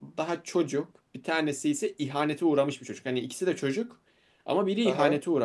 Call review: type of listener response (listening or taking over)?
listening